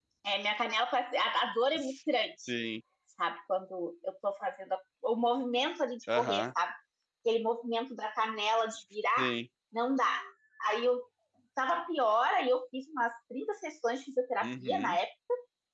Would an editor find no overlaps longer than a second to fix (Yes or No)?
Yes